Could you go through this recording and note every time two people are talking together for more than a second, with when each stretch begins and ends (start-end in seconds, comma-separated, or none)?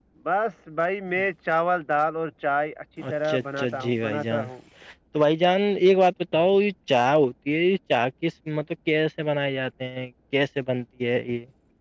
3.1-4.5